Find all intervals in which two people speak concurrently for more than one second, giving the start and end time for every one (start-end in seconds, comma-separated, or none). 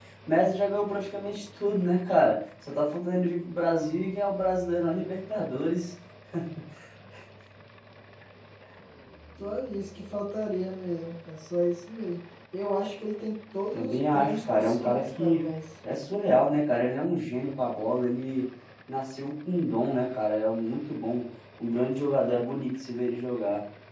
13.7-15.4